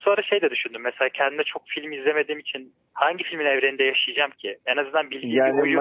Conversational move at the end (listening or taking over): taking over